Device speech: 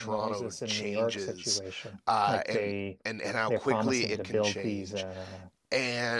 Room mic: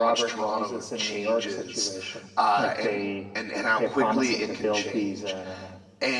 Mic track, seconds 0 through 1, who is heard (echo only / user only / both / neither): echo only